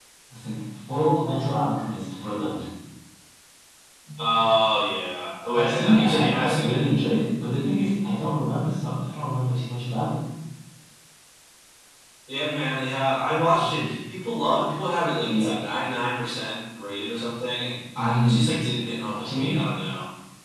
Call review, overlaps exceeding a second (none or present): present